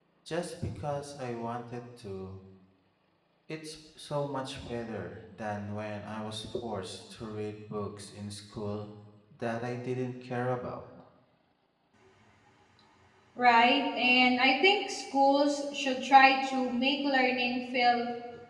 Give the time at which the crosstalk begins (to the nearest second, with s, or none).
none